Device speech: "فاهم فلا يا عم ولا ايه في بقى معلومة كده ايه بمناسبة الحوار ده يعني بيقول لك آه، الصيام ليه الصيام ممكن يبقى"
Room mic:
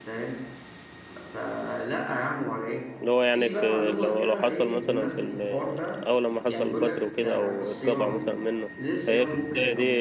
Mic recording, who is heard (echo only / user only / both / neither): both